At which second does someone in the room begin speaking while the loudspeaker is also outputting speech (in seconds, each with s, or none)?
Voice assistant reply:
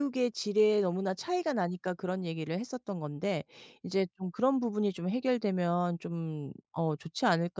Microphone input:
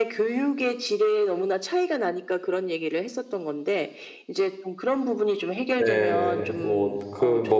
5.8 s